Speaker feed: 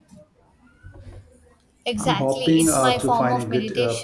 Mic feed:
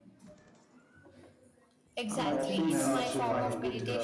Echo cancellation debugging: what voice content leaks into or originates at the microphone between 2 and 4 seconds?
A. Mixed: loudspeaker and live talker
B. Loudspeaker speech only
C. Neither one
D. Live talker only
A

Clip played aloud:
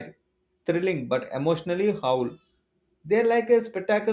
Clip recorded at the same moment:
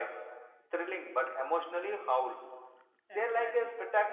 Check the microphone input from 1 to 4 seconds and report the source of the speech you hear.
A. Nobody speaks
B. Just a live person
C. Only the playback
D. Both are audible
D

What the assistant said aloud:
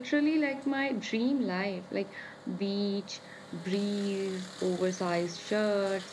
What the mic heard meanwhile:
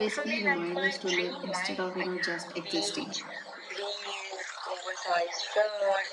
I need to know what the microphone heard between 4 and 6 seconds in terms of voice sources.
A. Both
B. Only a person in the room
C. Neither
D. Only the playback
D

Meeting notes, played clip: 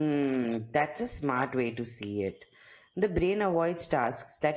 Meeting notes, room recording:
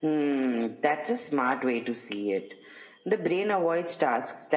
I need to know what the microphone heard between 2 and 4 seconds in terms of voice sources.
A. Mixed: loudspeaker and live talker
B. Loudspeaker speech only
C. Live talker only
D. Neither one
B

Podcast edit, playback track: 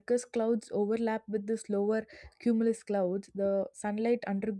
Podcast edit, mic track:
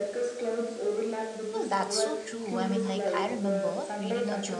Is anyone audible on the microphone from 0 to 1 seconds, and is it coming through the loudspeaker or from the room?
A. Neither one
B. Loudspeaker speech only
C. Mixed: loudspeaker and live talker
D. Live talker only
B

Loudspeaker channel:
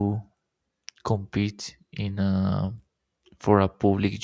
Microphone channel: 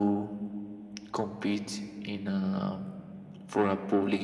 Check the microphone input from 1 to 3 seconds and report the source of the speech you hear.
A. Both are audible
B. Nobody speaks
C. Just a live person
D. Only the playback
D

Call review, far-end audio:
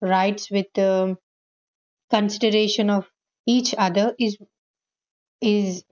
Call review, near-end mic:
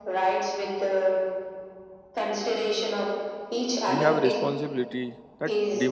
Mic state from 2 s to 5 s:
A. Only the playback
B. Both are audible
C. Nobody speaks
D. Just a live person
B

